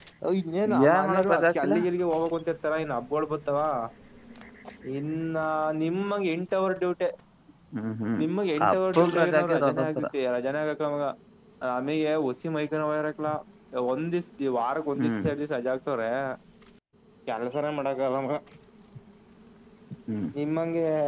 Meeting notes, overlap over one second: present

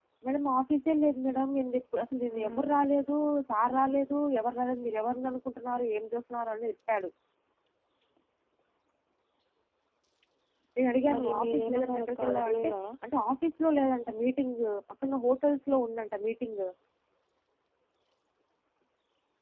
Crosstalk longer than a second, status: present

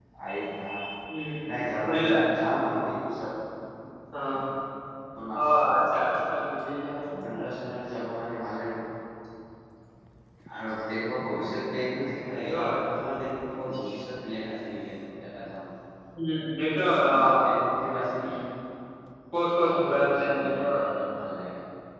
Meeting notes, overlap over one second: present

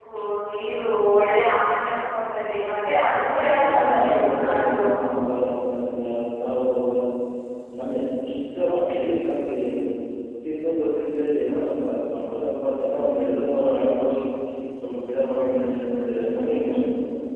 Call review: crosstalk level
present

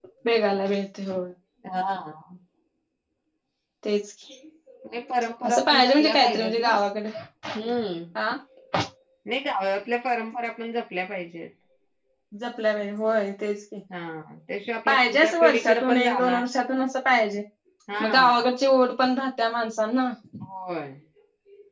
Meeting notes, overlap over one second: present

